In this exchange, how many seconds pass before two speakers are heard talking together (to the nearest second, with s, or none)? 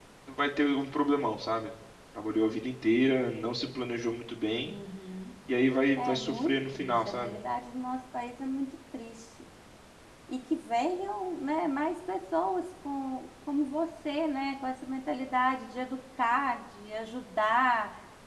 6 s